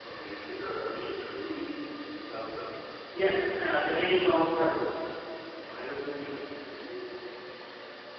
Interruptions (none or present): none